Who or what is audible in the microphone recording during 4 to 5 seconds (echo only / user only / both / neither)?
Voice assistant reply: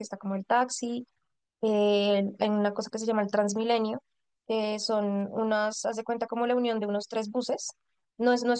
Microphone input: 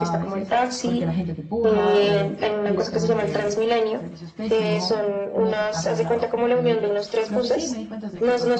both